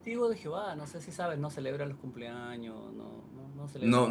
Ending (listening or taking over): taking over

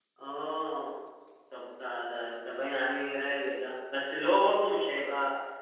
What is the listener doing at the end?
listening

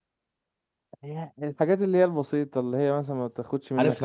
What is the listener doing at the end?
taking over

